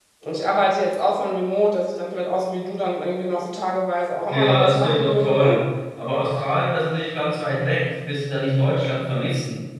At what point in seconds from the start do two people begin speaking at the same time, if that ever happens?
4.3 s

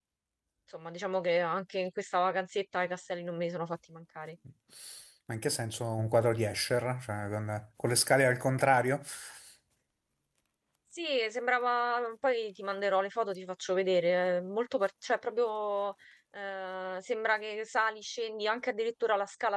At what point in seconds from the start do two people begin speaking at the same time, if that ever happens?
none

